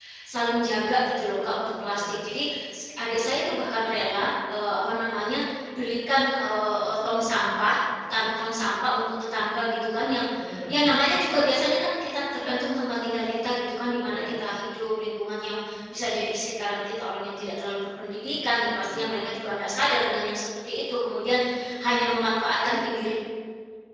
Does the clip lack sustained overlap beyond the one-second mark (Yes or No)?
Yes